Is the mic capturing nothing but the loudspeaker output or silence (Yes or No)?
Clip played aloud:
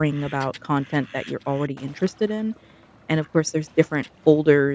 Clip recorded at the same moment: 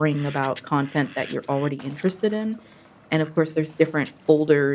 Yes